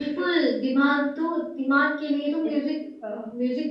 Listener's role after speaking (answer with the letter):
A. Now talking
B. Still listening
B